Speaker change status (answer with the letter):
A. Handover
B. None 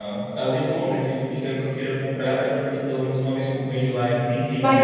A